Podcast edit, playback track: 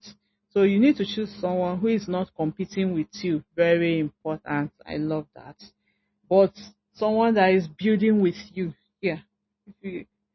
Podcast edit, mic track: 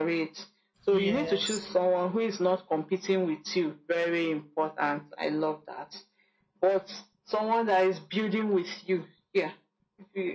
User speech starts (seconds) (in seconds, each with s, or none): 0.9 s